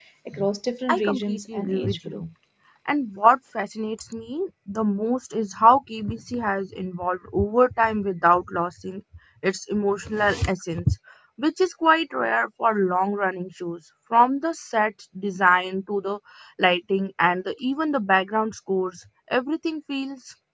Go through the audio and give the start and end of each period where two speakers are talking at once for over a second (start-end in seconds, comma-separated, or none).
0.9-2.2